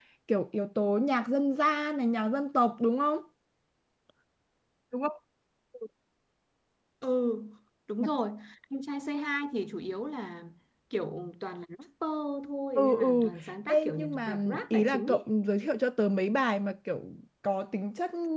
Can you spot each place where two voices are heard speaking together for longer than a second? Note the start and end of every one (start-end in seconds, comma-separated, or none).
13.7-15.2